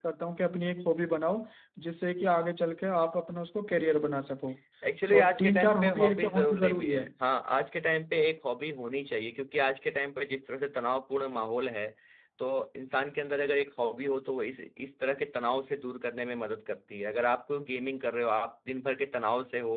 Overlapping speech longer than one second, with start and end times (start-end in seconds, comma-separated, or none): 5.2-7.0